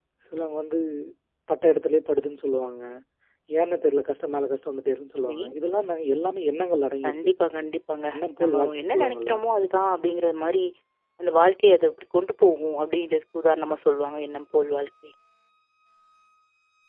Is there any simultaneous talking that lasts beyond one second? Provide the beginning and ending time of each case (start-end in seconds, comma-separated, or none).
8.1-9.3